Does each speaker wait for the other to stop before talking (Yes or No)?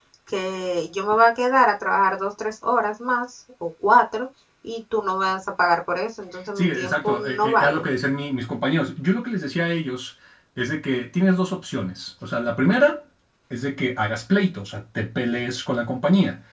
No